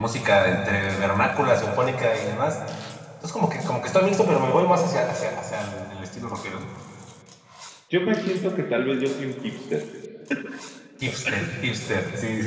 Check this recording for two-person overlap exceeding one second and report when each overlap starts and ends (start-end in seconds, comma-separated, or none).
none